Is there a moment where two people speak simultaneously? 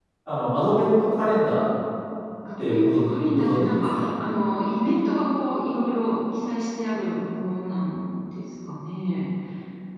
Yes, from 2.6 s

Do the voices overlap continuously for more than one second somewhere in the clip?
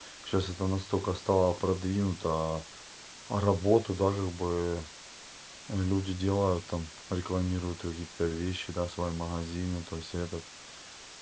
No

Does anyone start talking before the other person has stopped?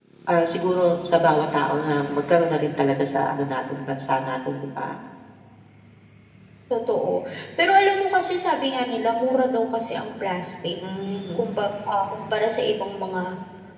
No

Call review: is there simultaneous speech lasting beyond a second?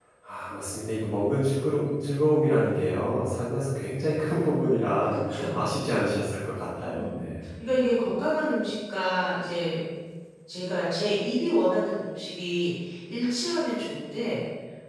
No

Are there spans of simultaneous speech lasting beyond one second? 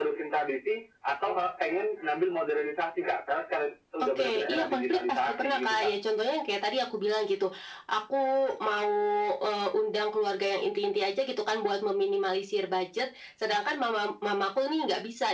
Yes, from 4.0 s

